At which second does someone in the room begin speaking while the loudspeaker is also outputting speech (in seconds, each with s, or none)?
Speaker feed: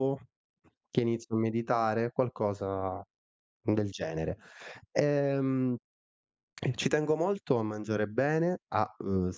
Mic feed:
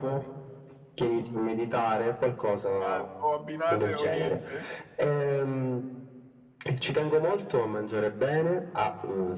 2.8 s